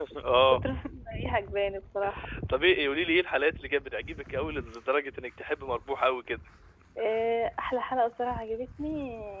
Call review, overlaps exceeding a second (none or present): none